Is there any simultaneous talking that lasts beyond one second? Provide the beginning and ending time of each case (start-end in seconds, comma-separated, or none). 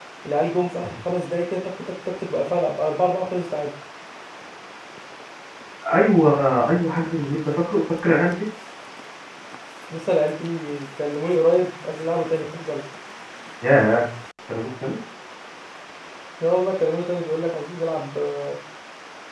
none